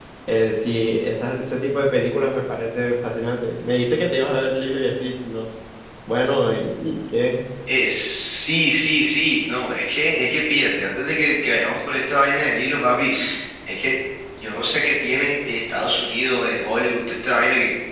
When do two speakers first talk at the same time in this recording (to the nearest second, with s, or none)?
none